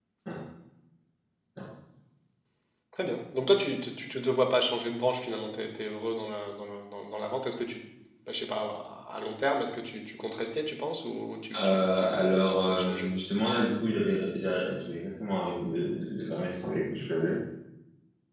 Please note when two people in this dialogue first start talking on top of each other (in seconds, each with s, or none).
11.5 s